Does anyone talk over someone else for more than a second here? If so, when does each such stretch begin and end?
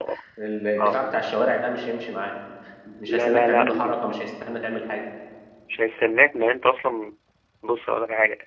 3.1-4.3

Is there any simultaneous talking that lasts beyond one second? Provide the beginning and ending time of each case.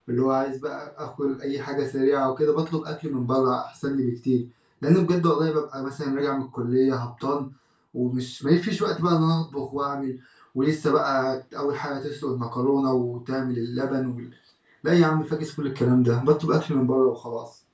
none

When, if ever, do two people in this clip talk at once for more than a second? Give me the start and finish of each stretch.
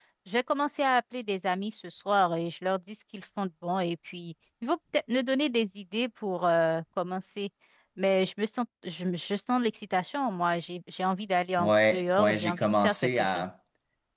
11.6-13.5

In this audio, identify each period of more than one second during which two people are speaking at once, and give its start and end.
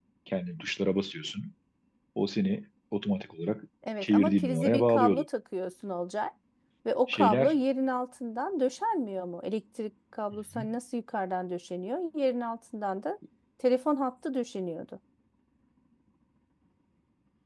4.0-5.2

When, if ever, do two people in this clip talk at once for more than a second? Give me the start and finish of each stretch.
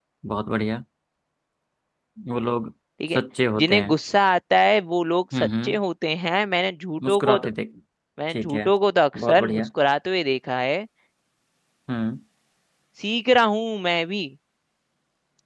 none

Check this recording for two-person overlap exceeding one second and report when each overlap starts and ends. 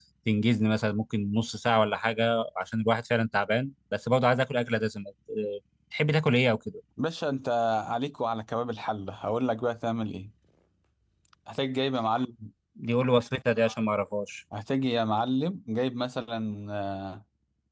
none

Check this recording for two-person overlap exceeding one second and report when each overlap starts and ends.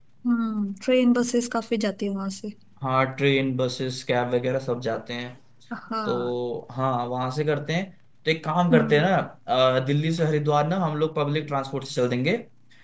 none

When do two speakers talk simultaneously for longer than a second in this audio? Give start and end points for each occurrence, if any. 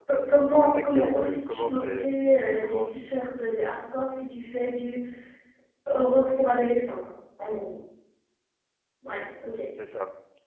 0.6-2.1

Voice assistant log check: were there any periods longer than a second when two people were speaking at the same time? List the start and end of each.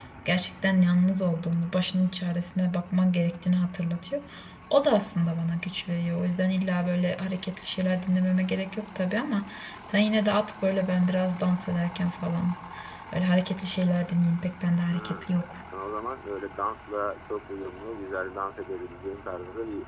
none

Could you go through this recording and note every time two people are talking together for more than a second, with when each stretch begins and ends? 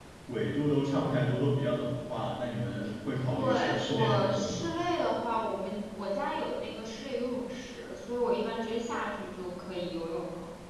3.2-4.7

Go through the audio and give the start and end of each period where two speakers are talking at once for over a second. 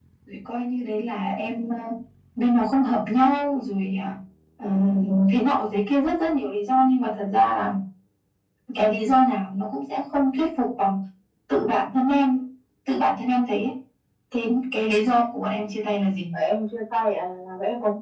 none

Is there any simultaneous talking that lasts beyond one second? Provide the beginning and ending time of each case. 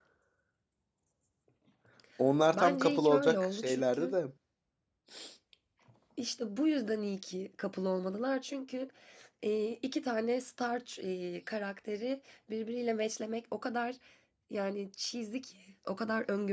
2.5-4.2

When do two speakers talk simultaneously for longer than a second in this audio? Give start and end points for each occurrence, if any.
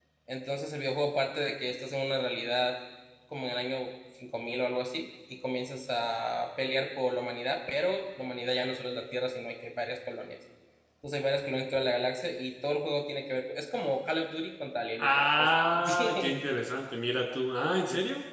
15.0-16.4

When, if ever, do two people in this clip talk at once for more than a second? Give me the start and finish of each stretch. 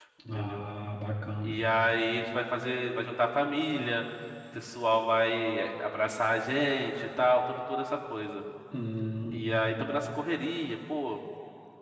none

